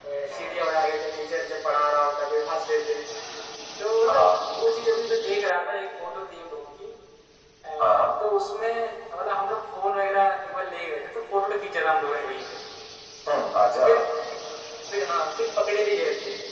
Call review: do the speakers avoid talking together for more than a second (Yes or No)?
Yes